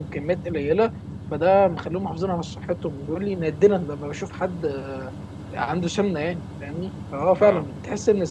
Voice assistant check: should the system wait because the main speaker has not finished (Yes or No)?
Yes